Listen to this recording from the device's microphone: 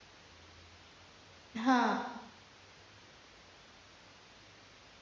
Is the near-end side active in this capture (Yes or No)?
Yes